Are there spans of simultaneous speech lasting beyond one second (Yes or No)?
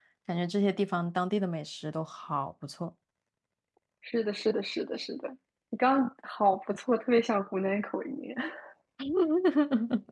No